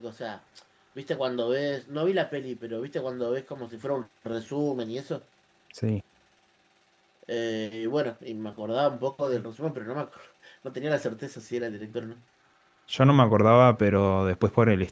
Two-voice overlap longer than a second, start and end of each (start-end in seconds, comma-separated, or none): none